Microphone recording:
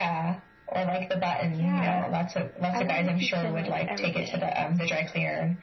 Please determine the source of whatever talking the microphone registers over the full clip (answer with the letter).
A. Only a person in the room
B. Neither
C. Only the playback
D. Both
D